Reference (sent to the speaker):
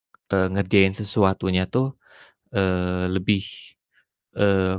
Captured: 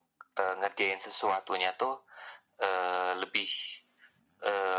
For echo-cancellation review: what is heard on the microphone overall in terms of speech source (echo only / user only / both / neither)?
echo only